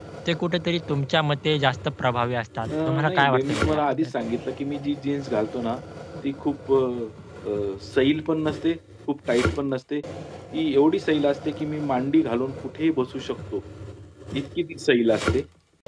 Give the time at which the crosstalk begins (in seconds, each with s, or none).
2.7 s